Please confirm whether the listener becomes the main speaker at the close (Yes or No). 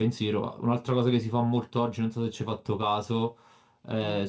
No